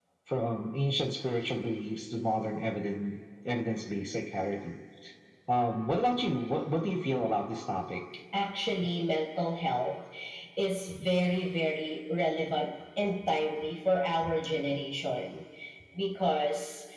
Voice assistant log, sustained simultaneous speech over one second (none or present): none